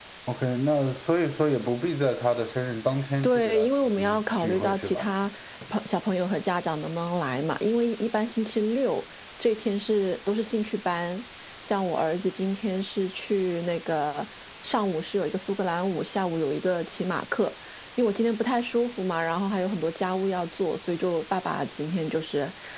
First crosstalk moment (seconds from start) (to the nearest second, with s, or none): 3 s